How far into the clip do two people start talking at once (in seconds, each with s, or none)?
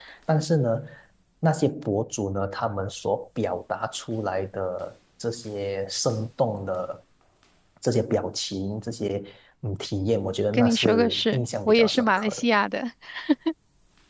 10.5 s